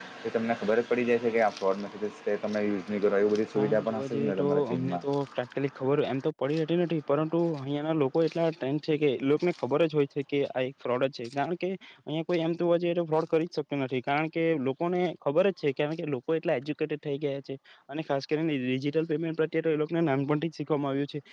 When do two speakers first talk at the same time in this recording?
3.5 s

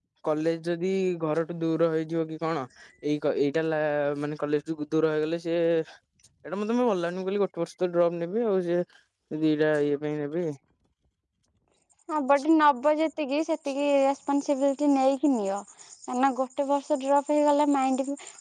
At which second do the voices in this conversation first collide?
none

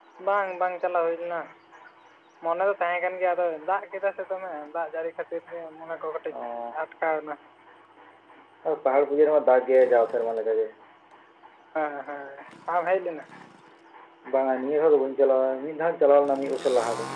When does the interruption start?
none

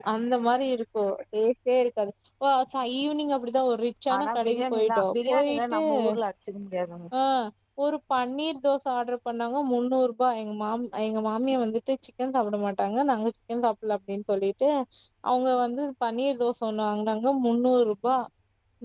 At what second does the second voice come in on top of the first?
4.1 s

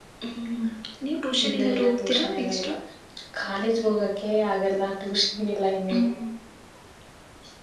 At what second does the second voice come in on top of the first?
1.4 s

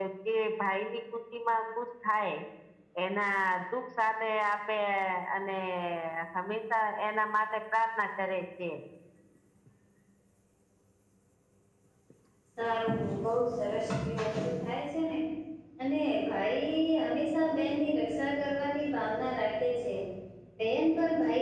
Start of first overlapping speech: none

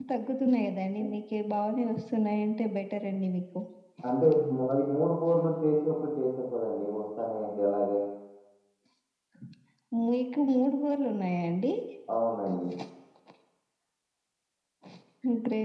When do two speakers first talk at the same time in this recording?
none

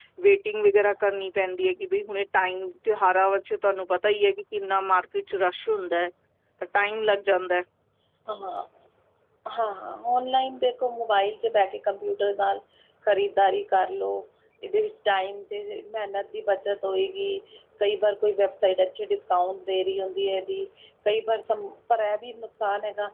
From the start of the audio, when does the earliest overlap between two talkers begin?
none

